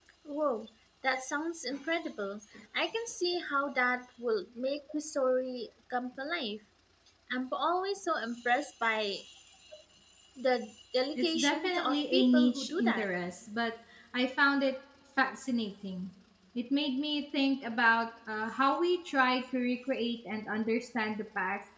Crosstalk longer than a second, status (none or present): present